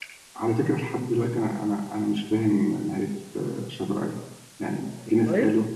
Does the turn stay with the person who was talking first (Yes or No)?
Yes